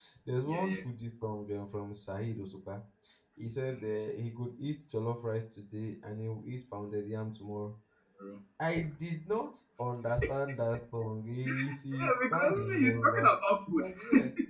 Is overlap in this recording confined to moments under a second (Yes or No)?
No